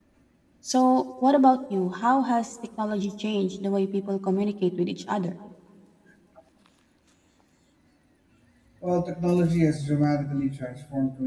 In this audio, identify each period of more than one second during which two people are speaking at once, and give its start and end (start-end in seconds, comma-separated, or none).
none